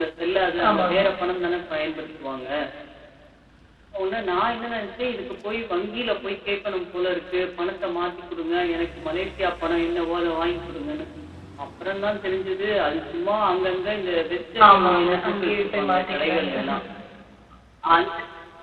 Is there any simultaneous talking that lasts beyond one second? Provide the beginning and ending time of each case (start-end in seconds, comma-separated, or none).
14.7-16.5